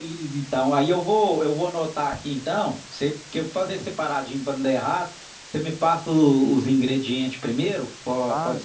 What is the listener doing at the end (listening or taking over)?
taking over